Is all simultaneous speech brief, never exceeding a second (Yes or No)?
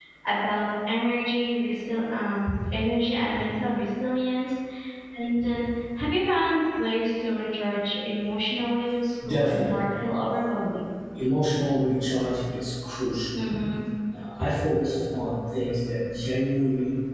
Yes